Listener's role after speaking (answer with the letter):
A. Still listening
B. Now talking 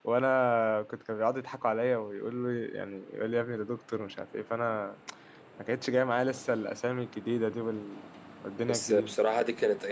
B